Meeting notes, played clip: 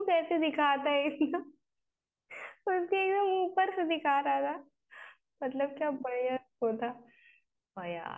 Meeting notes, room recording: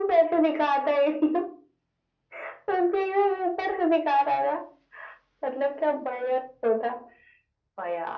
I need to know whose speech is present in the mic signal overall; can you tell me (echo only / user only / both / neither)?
echo only